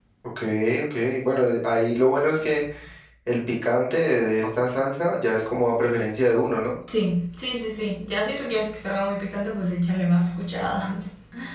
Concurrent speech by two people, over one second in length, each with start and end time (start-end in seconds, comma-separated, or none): none